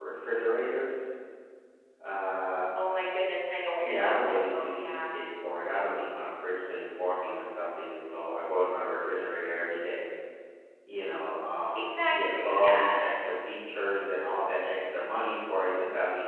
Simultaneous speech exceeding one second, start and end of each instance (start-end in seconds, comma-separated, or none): 3.8-5.1, 11.8-13.0